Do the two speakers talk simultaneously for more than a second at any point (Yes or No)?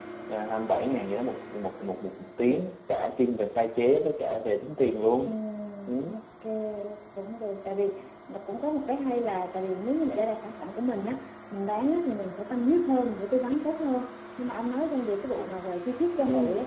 No